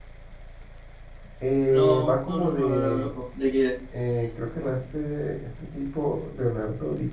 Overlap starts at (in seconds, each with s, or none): 1.7 s